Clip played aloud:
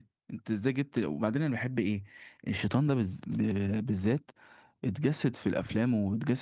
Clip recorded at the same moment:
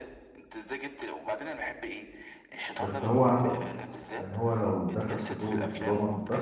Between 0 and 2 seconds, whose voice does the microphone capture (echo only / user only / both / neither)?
echo only